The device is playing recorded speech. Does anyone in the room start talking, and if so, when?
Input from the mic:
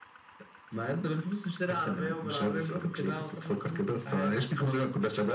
none

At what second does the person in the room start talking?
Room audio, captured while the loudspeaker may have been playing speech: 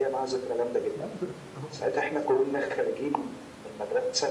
0.9 s

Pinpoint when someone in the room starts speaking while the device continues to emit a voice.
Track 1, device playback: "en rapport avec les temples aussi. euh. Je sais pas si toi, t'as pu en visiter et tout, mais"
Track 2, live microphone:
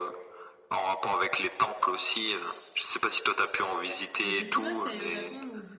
4.2 s

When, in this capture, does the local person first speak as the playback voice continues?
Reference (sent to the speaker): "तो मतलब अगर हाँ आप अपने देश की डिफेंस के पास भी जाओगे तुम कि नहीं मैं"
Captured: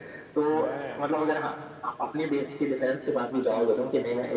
0.5 s

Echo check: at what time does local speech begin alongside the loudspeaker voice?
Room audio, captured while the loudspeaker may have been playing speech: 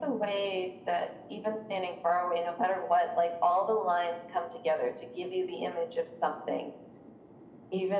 none

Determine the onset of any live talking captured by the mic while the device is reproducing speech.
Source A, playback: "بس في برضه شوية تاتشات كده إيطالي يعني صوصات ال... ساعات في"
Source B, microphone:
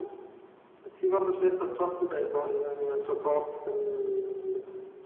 none

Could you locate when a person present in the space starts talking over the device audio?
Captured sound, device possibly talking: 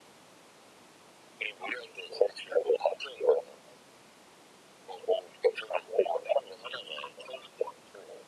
none

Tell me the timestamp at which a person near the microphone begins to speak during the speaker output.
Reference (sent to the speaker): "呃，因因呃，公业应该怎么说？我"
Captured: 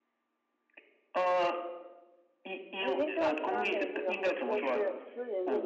2.8 s

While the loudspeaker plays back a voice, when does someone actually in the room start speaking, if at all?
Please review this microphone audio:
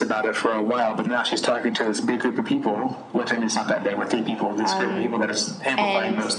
4.6 s

